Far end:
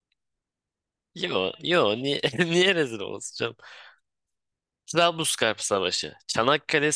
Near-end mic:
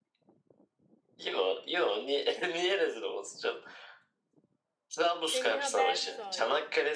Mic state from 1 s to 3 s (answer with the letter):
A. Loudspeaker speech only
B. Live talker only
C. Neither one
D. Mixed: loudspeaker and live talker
A